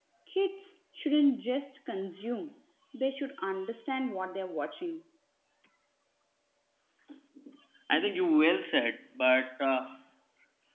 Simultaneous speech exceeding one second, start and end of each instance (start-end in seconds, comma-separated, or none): none